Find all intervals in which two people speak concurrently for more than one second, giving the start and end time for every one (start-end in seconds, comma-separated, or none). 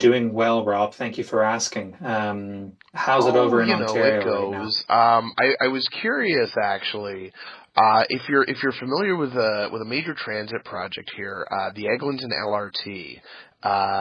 3.2-4.7